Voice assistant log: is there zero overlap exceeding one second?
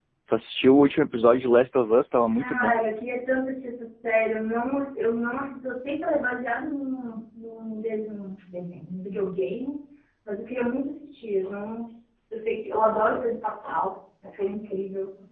Yes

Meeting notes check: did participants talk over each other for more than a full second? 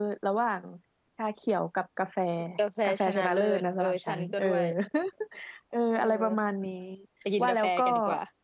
Yes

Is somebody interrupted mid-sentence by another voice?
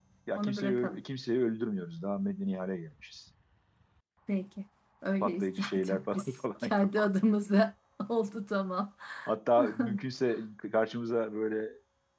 Yes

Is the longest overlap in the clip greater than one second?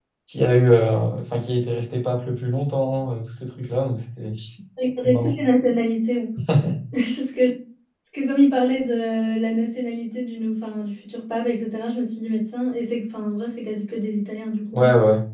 No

